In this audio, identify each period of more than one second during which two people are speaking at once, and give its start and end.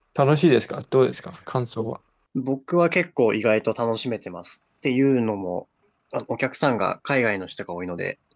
none

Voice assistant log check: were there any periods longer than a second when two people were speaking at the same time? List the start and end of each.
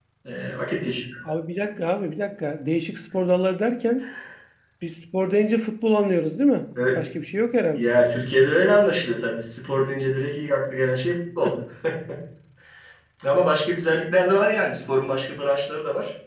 none

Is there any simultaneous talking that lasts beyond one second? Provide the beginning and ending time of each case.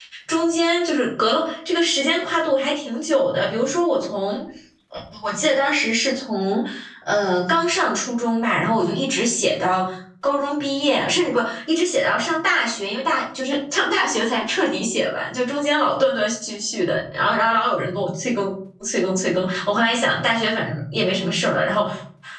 none

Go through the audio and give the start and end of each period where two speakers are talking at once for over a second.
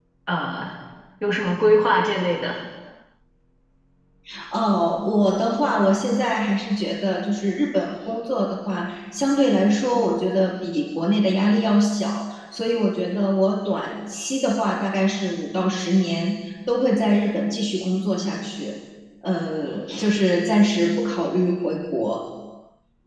none

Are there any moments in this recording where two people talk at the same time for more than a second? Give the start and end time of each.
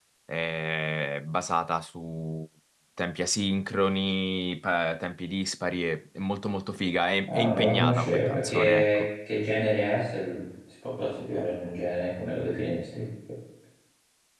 7.3-9.0

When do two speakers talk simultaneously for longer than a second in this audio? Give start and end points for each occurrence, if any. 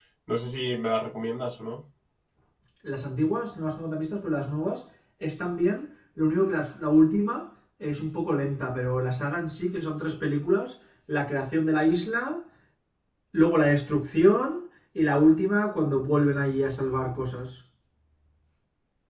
none

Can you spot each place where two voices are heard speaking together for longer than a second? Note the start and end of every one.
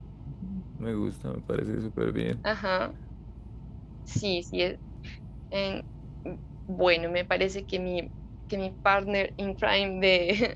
none

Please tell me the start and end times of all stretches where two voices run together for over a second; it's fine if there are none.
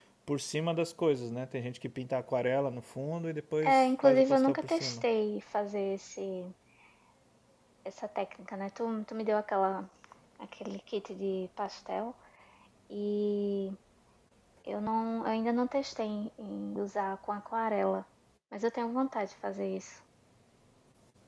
3.6-5.0

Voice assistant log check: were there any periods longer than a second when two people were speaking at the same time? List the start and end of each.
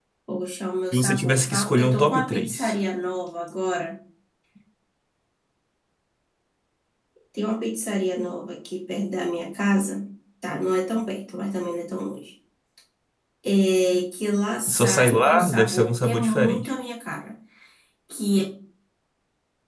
0.9-2.8, 14.7-16.7

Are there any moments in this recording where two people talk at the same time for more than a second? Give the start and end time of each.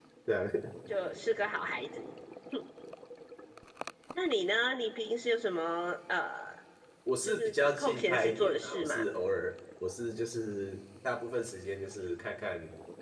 7.2-9.0

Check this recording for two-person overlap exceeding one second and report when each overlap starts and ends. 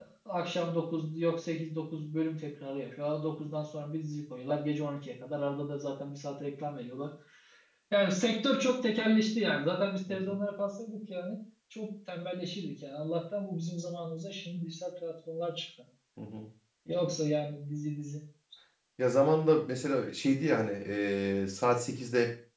none

